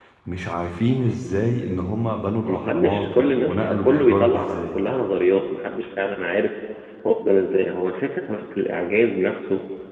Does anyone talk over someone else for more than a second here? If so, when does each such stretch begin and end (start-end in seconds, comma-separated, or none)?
2.5-4.8